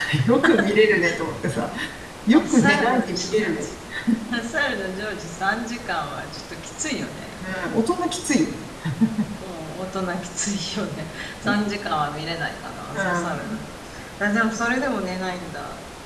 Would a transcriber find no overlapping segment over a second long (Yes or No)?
No